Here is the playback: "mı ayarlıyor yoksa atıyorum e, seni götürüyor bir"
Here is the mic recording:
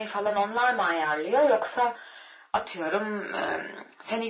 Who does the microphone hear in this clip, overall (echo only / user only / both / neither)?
echo only